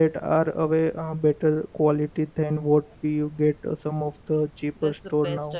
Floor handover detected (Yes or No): Yes